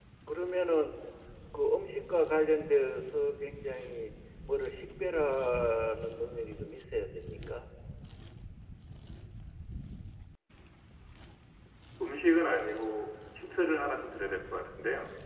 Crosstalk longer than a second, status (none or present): none